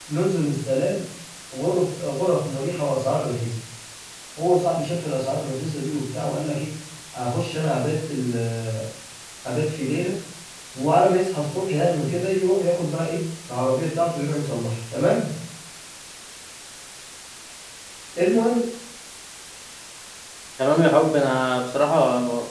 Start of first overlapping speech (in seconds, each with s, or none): none